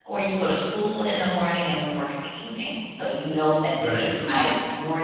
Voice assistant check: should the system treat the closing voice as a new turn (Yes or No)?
No